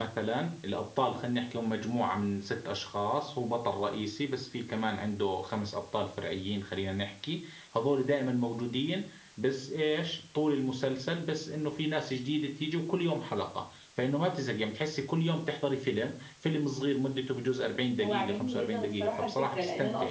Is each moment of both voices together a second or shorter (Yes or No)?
No